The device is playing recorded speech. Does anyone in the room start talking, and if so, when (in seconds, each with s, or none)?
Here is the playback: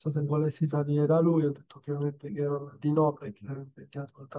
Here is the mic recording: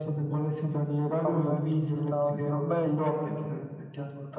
1.2 s